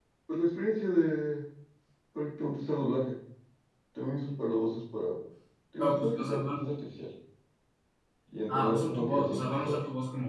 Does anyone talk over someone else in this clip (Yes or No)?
Yes